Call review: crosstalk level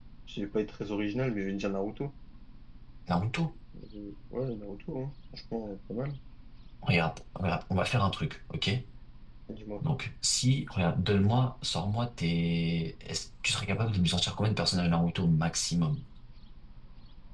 none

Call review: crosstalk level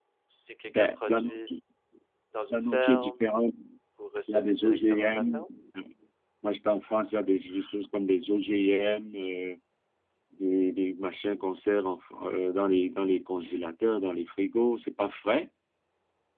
present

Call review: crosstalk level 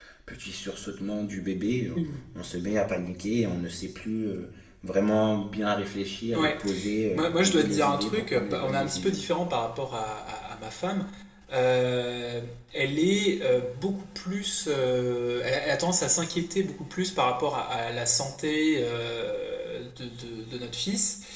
present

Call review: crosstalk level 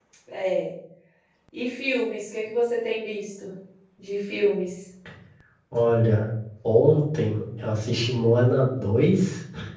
none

